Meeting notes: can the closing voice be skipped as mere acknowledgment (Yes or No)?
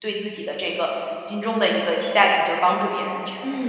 No